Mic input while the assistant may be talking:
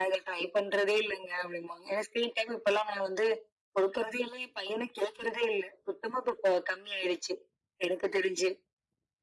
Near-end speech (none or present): none